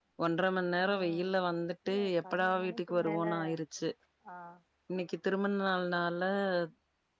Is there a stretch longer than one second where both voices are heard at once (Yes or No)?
Yes